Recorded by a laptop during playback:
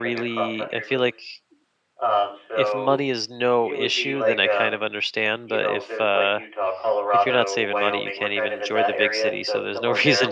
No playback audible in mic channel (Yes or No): No